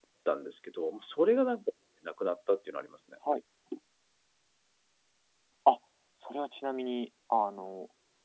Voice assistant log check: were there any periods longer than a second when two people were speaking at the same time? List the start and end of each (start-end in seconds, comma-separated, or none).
none